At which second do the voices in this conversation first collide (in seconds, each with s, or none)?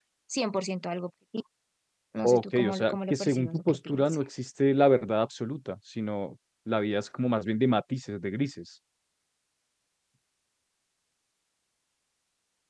2.3 s